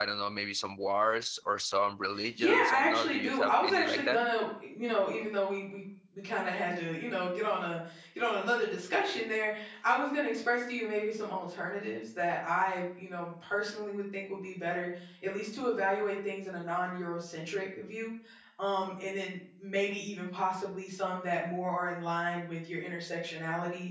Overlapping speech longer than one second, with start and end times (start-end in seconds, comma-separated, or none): 2.4-4.2